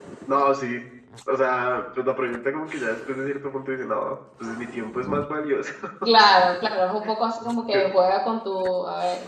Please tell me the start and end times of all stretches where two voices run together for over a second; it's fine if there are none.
none

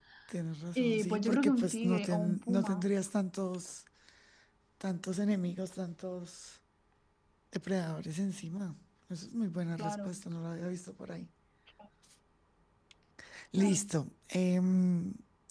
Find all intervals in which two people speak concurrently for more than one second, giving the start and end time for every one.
0.8-2.8

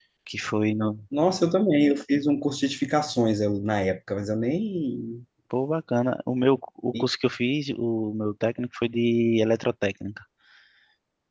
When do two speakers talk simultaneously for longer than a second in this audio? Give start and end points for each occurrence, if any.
none

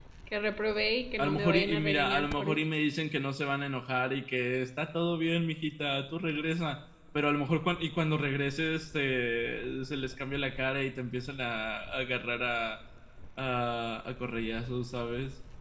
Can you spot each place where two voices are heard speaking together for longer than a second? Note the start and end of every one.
1.2-2.6

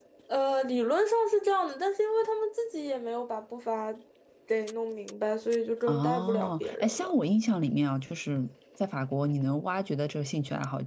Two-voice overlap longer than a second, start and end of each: 5.9-7.1

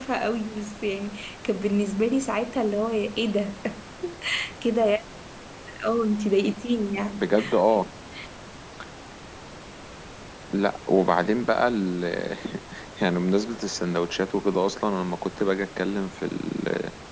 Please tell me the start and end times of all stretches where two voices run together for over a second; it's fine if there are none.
none

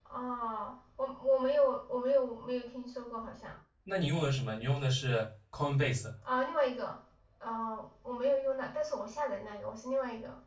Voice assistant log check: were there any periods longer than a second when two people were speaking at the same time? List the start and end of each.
none

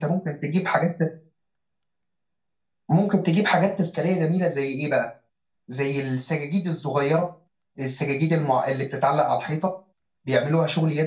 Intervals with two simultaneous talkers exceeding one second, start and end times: none

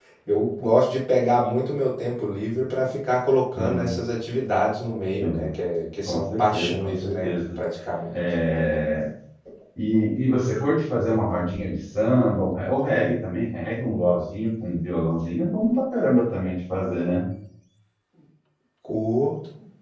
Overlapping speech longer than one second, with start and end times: 6.1-7.3

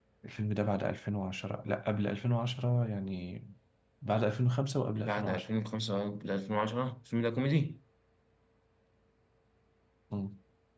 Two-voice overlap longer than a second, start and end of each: none

